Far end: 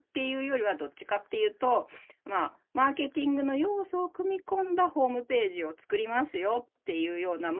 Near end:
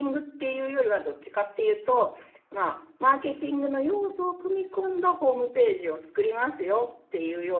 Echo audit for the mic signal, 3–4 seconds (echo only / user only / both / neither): echo only